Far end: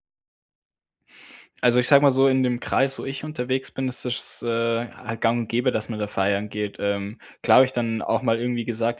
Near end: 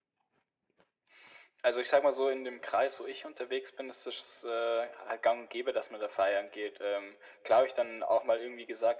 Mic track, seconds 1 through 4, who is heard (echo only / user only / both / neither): echo only